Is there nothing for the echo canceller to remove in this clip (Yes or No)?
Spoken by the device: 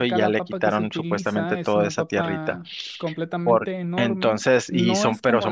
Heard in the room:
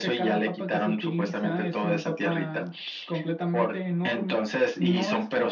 No